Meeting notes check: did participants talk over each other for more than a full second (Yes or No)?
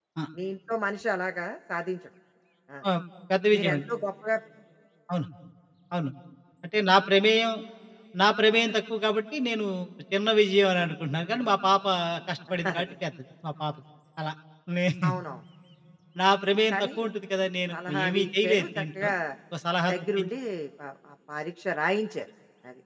Yes